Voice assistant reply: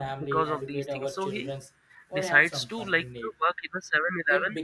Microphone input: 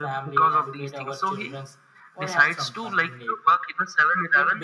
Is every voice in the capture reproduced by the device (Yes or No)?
Yes